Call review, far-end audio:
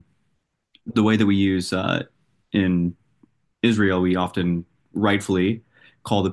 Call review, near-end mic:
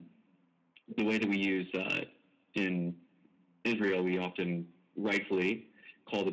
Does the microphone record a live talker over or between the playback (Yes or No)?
No